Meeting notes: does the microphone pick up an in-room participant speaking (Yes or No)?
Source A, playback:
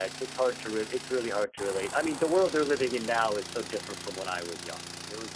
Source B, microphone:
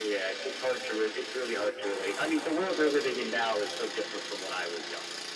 No